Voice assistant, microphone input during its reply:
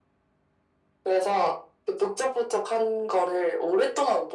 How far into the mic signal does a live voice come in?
none

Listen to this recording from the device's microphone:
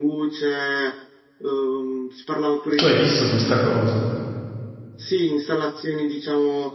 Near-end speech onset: 2.8 s

